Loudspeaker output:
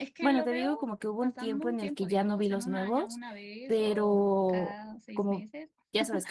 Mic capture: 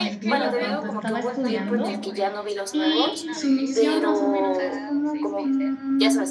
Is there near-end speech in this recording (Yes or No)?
Yes